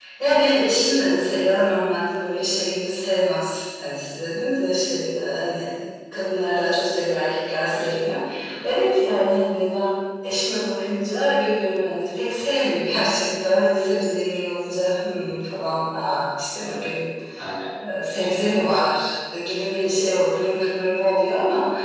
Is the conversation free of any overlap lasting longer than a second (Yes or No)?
Yes